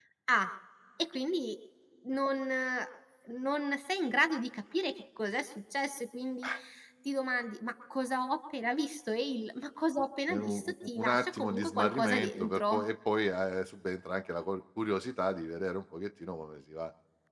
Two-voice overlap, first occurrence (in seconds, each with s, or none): 10.3 s